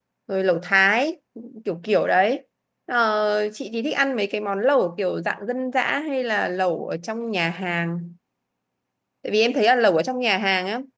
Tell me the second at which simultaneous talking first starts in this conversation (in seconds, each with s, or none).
none